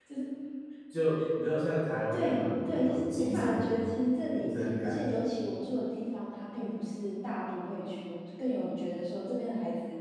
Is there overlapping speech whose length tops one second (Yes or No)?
Yes